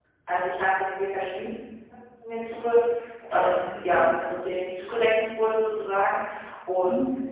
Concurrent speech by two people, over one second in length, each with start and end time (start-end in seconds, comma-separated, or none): 3.3-4.5